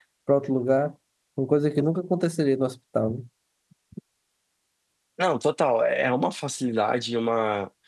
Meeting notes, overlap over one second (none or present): none